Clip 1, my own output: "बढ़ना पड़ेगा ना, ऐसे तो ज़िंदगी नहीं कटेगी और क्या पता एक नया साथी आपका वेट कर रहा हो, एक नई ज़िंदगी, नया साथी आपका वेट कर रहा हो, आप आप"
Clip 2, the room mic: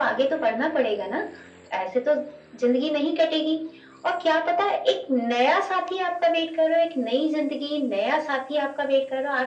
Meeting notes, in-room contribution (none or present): none